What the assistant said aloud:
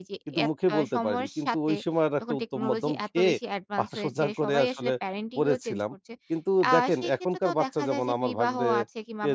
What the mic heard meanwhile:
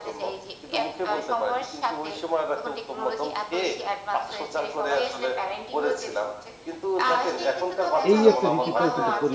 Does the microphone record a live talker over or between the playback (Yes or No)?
Yes